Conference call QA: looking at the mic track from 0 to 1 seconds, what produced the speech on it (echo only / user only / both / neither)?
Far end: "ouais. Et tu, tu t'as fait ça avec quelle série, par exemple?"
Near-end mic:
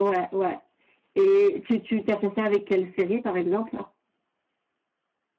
echo only